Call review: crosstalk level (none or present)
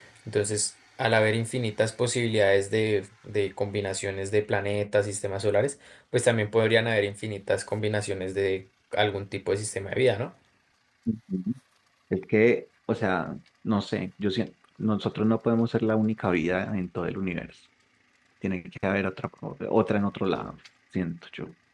none